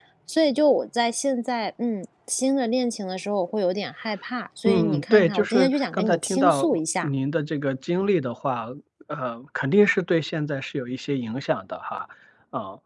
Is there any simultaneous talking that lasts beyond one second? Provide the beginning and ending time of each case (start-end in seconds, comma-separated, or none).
4.7-7.1